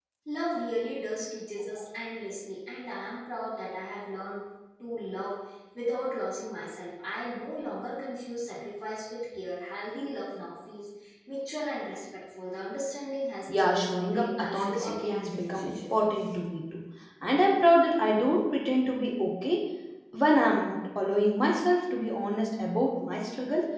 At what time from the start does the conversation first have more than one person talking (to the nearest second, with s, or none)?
13 s